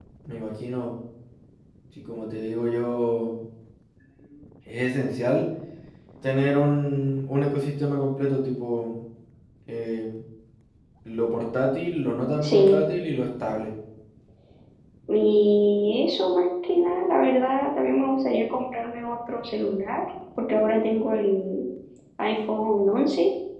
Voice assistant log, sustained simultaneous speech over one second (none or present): none